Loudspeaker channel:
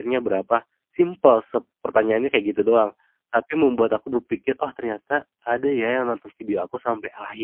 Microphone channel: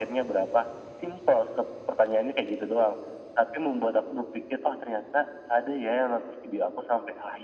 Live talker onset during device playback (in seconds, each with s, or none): none